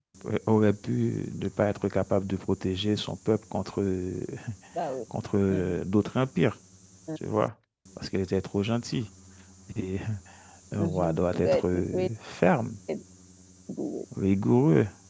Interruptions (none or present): present